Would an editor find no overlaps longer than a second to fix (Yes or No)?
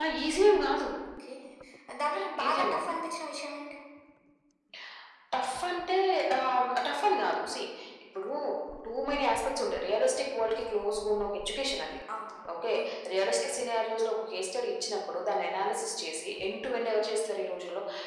Yes